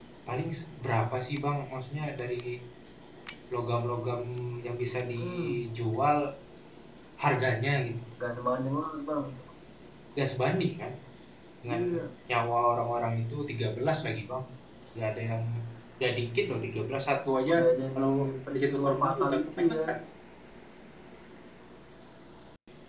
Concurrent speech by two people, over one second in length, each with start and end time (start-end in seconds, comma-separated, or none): 18.5-19.8